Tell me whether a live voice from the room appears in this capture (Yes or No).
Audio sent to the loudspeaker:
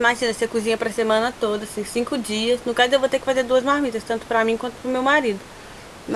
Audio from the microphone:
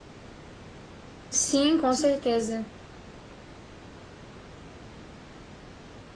Yes